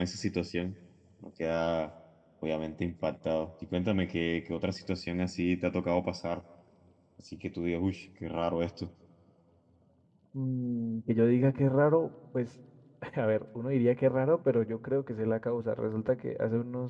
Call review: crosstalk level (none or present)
none